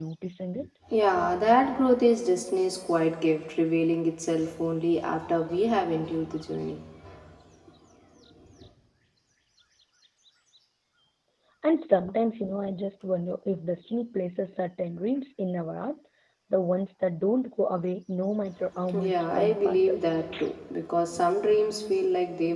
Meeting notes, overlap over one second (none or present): present